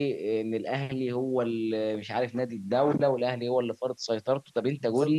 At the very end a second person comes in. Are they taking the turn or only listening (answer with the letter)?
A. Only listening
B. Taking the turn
A